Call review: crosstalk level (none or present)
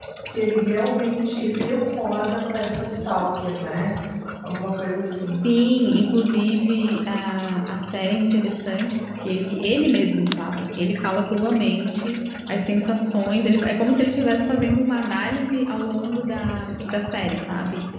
none